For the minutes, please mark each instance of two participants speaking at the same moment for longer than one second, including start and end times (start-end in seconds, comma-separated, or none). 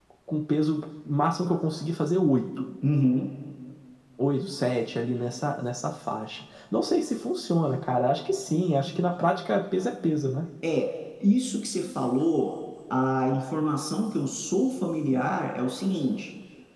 none